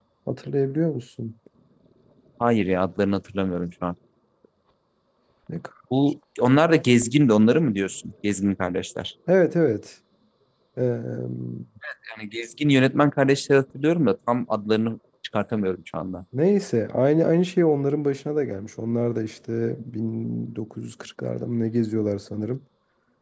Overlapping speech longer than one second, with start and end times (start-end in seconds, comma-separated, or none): none